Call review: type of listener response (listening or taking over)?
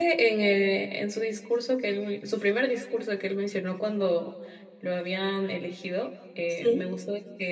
listening